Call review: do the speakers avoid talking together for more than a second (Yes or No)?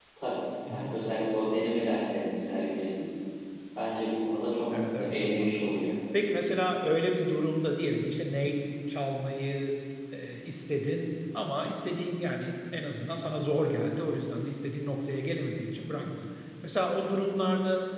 No